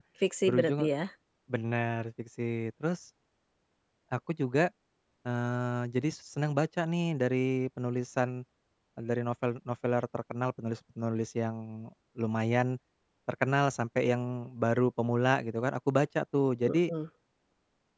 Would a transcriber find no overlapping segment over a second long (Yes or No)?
Yes